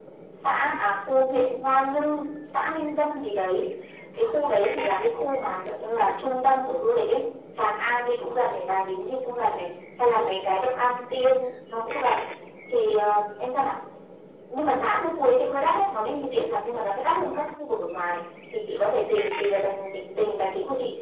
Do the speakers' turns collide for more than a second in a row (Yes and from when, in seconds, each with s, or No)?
No